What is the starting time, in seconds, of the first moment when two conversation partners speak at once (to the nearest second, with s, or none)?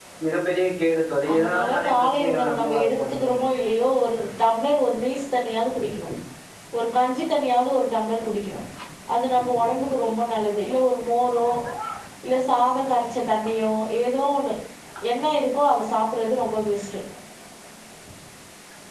1 s